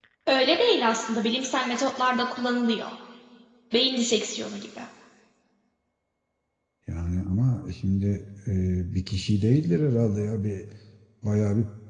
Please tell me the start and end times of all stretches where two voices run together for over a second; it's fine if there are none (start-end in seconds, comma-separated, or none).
none